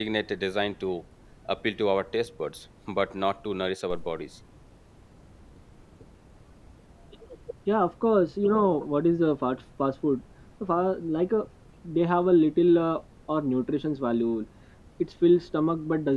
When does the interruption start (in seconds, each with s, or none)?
none